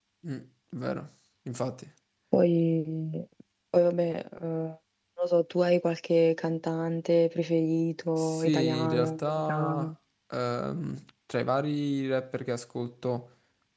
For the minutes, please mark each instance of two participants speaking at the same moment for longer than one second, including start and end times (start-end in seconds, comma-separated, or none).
8.2-9.9